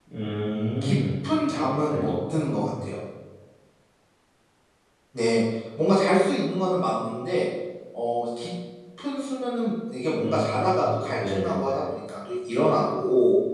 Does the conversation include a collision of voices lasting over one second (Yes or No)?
Yes